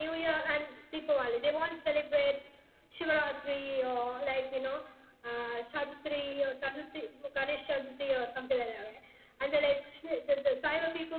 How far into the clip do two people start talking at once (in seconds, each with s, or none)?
none